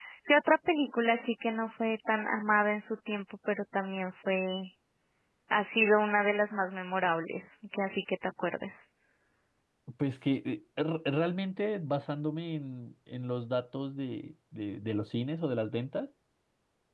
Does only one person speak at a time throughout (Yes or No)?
Yes